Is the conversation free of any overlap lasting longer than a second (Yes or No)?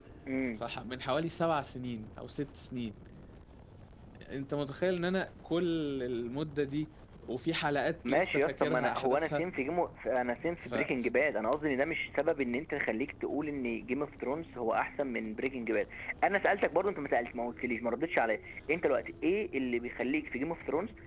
No